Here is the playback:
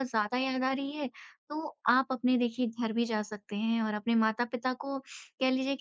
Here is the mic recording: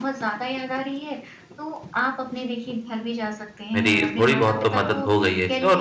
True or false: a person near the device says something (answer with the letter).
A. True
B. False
A